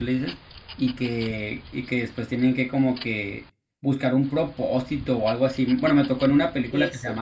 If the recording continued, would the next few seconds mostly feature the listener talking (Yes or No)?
No